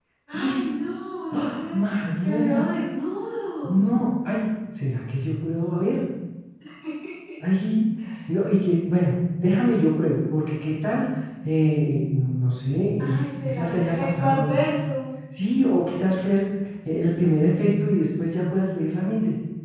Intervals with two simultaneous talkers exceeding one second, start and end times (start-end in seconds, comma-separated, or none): 13.1-14.6